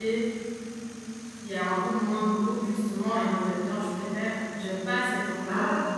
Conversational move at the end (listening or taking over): listening